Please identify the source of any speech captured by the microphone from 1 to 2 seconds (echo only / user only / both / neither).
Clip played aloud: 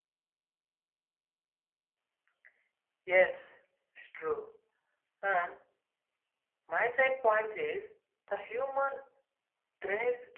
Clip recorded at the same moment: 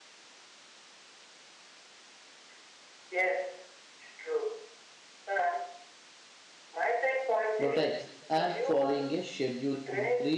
neither